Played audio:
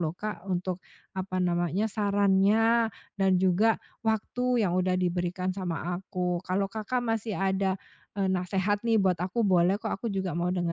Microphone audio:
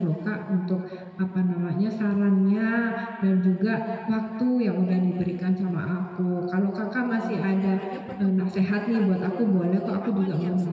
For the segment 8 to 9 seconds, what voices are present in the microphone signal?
both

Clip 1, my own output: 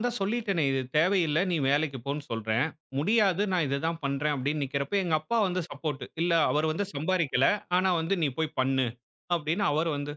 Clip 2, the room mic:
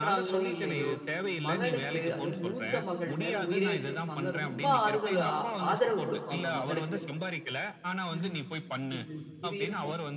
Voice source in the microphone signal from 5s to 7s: both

